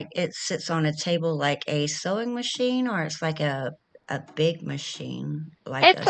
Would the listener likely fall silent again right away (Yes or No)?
No